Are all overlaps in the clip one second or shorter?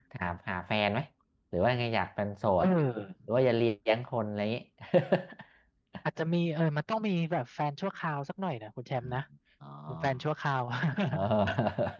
Yes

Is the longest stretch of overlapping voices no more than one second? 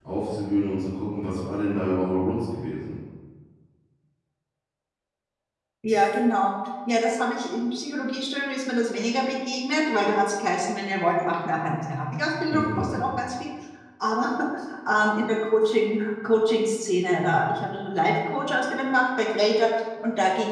Yes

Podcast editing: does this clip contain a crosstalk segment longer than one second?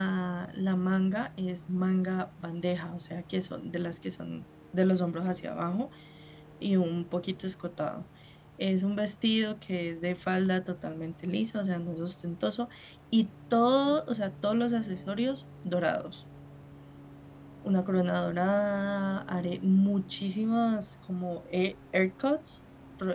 No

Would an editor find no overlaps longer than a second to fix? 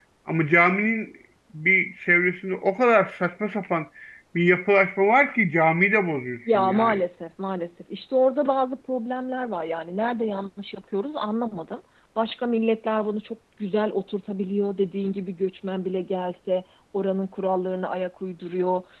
Yes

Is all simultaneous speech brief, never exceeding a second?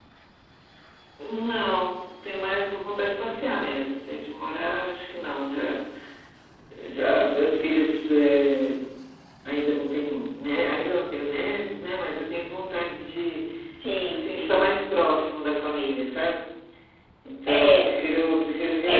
Yes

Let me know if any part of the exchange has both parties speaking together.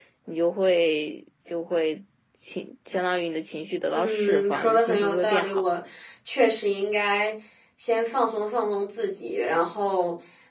Yes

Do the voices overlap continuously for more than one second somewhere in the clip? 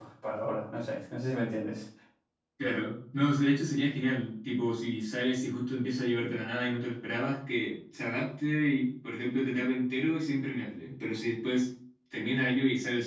No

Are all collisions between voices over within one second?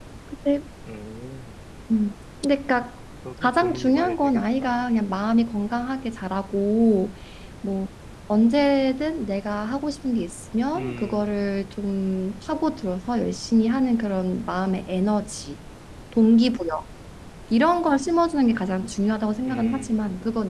No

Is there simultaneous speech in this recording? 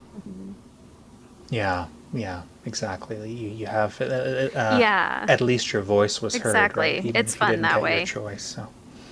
Yes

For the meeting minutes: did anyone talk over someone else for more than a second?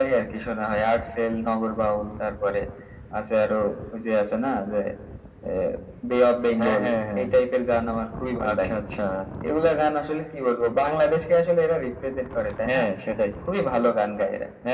No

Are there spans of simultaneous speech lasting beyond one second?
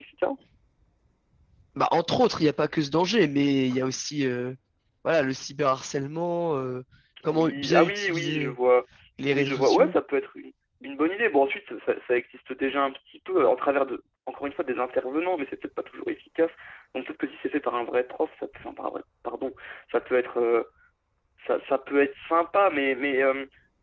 Yes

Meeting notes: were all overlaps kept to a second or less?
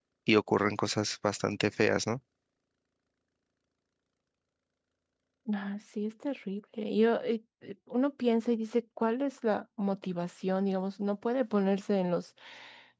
Yes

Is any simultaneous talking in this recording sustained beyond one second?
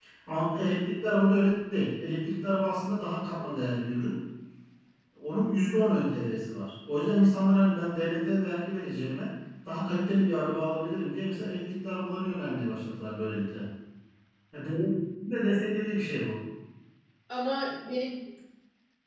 No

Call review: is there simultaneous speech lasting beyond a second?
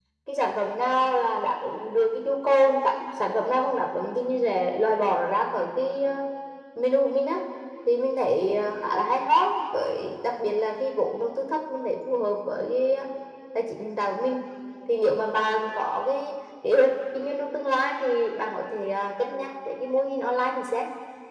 No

